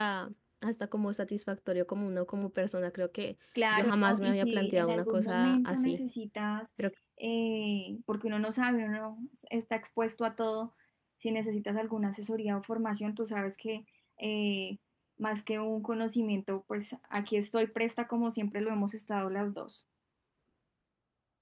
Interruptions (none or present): present